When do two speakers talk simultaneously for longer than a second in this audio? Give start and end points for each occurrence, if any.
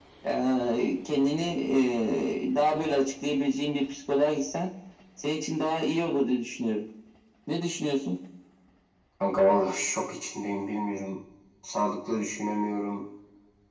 none

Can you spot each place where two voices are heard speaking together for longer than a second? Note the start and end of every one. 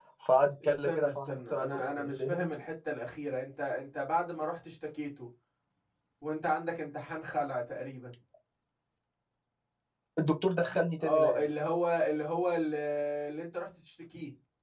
0.6-2.5

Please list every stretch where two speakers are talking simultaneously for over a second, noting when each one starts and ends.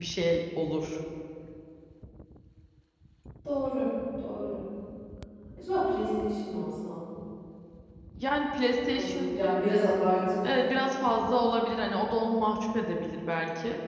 none

